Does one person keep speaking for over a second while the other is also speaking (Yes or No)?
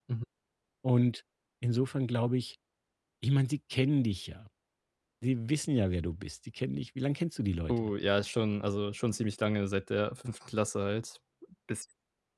No